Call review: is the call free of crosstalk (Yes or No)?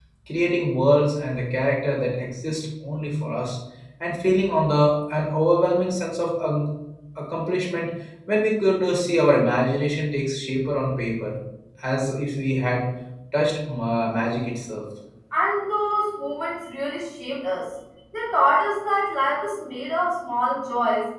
Yes